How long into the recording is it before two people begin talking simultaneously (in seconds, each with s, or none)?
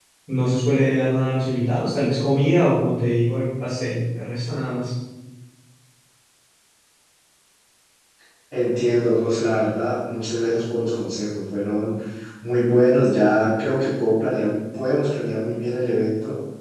none